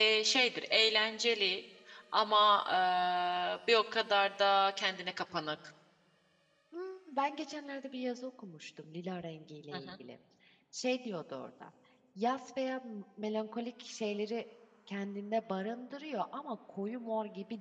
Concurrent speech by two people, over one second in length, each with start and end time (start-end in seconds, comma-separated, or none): none